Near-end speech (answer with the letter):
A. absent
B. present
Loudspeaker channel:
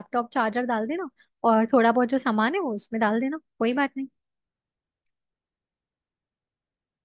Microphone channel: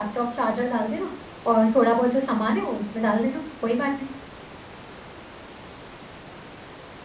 A